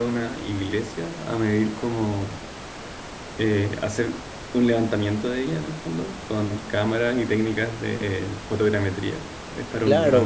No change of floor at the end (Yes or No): No